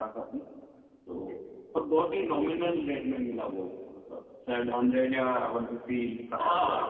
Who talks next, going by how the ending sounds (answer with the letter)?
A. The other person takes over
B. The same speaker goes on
A